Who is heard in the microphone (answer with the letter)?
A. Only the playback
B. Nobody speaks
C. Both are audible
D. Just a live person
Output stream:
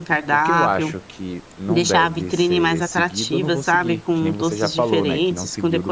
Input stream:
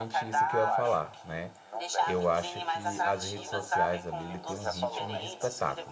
C